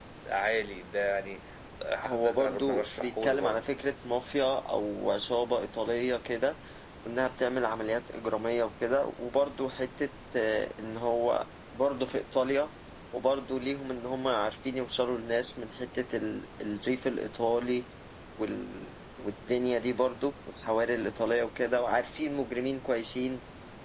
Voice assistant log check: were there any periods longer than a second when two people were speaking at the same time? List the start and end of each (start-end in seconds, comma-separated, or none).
2.0-3.6